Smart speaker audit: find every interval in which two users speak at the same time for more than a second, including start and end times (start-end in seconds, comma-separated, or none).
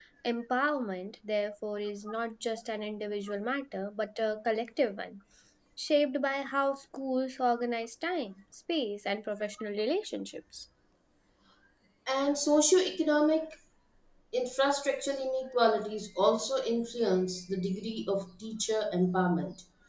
none